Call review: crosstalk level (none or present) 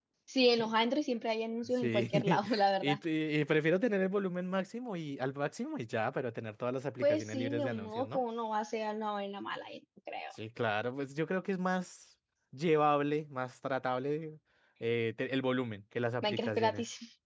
present